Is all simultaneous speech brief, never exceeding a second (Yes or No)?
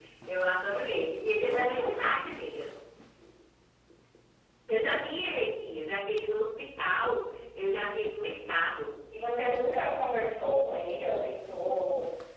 Yes